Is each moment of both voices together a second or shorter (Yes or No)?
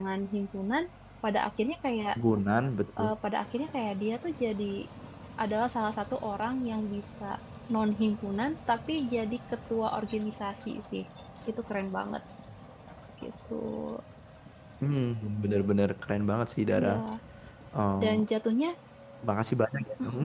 Yes